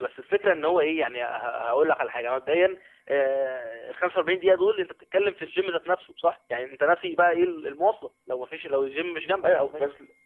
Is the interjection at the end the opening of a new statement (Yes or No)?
Yes